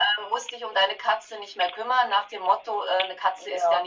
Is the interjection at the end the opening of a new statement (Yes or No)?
No